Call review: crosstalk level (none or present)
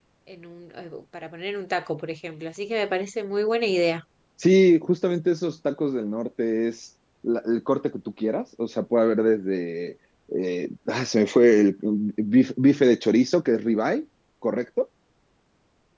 none